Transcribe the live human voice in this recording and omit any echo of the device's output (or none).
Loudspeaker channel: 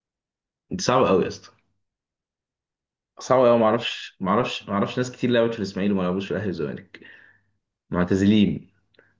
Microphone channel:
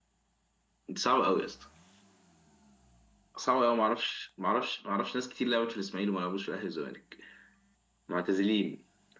none